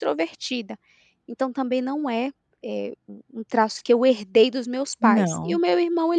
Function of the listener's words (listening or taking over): listening